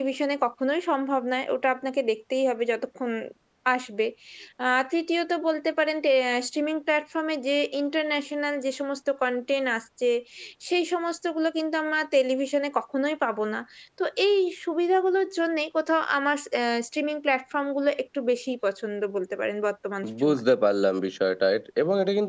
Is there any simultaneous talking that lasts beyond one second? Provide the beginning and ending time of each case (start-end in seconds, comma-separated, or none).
none